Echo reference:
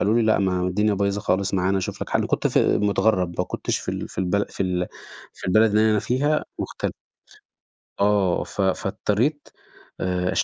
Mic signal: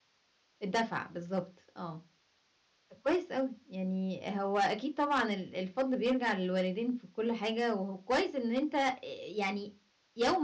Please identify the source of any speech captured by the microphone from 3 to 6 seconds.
user only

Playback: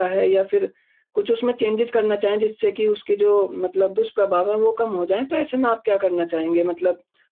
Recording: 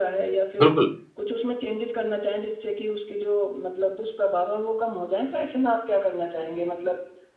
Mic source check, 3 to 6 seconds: echo only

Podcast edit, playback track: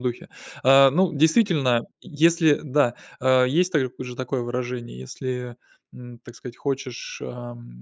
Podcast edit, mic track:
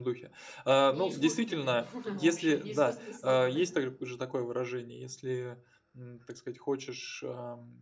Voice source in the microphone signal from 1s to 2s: both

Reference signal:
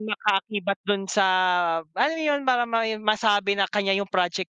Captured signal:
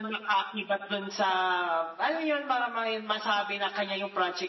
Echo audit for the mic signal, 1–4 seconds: echo only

